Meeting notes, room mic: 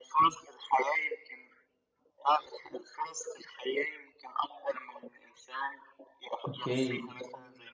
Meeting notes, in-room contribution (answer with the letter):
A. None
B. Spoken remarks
B